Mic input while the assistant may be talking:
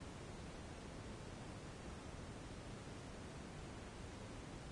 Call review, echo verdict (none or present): none